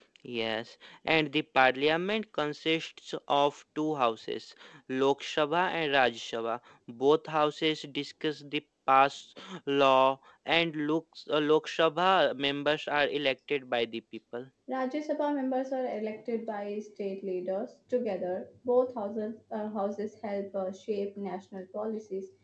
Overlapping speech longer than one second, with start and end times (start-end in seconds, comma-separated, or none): none